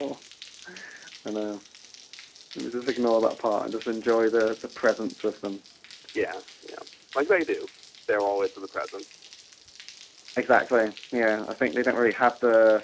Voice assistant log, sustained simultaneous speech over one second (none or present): none